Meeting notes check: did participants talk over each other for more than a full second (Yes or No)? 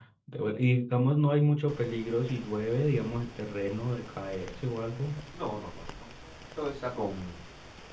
No